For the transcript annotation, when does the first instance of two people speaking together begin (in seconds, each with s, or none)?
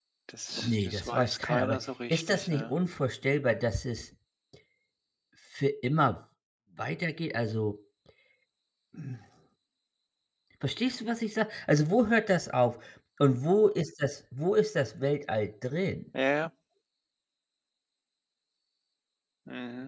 0.6 s